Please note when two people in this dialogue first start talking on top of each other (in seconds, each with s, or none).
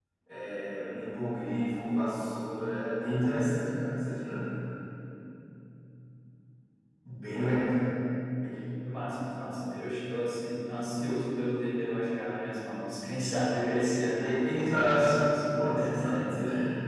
14.2 s